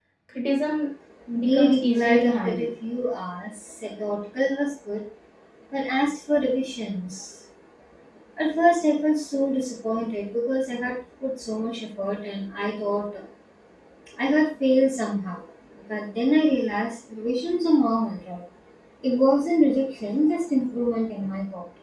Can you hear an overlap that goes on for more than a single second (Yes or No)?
Yes